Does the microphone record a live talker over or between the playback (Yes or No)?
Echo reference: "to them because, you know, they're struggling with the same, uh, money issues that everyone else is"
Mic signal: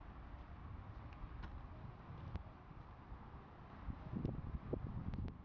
No